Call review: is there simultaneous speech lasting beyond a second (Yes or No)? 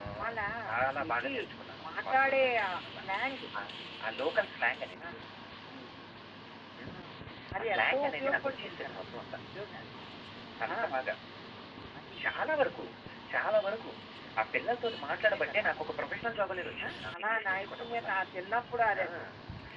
Yes